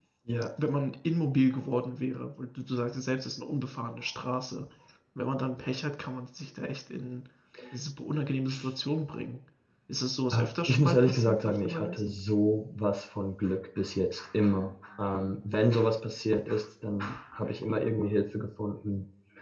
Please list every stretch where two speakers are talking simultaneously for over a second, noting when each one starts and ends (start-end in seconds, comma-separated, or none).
10.3-12.1